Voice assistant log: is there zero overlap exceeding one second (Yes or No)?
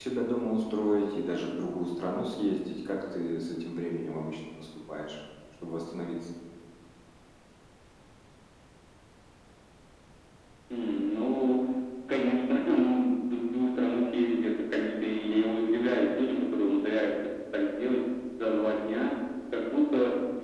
Yes